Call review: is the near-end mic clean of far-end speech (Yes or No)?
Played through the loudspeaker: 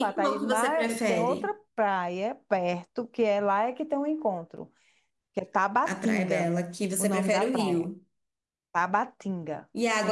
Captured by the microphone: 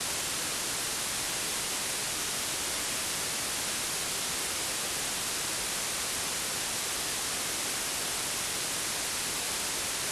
Yes